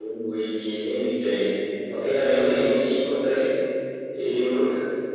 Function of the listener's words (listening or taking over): taking over